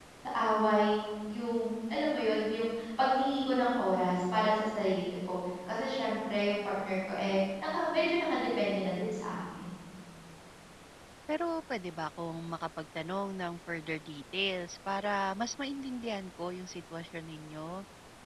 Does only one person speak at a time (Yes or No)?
Yes